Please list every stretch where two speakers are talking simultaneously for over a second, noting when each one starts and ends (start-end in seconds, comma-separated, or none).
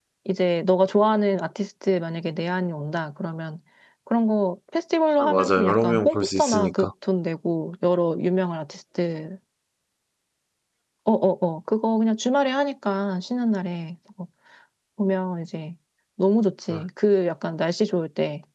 5.2-6.9